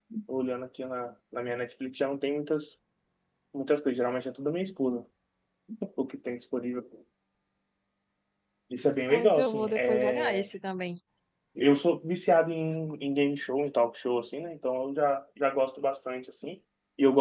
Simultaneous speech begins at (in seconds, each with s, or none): 9.1 s